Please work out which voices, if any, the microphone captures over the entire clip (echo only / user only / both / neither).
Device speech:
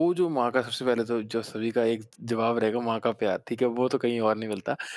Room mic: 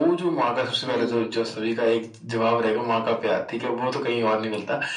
both